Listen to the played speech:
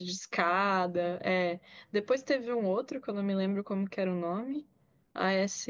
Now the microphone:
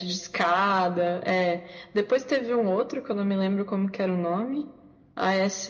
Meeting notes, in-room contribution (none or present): none